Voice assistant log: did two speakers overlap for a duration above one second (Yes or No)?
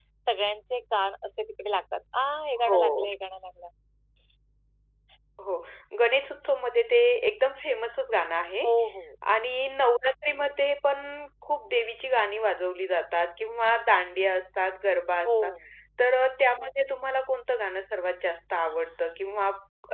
No